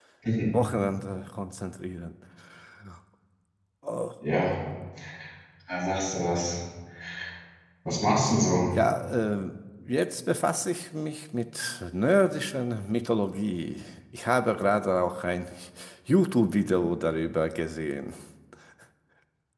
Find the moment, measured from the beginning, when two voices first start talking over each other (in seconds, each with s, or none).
none